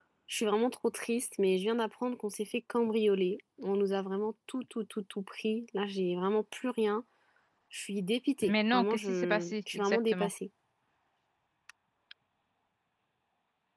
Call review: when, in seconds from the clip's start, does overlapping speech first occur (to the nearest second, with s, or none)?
8 s